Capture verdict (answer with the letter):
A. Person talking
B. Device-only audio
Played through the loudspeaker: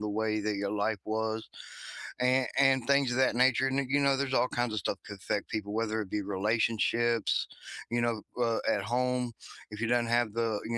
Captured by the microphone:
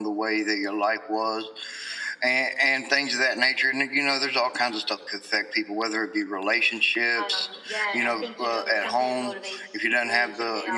A